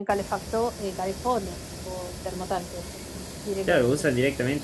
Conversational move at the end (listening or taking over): taking over